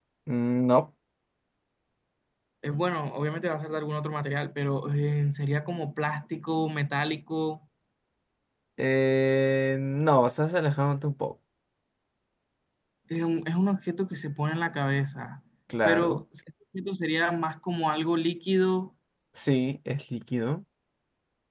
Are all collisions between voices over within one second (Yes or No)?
Yes